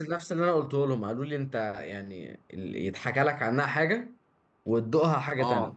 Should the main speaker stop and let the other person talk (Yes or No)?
Yes